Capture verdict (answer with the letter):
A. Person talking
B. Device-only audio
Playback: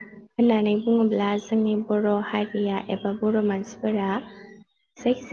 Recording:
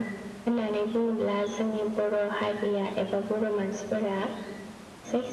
B